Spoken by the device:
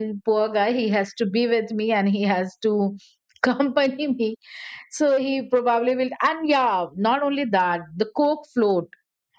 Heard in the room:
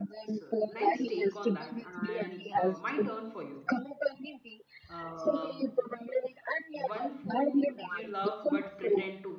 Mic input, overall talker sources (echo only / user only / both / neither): both